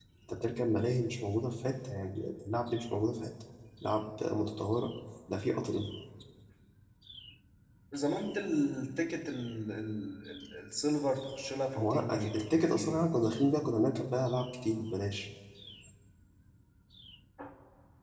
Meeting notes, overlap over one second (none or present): present